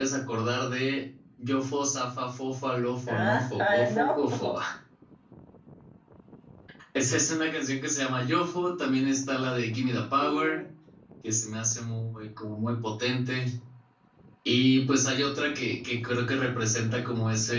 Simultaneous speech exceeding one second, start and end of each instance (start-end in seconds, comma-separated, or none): 3.1-4.5